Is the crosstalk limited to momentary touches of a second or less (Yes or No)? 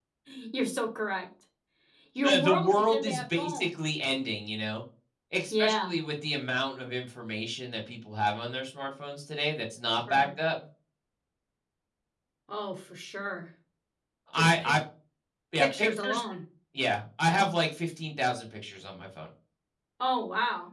No